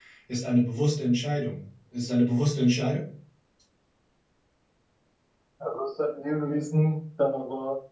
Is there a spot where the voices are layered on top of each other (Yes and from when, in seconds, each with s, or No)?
No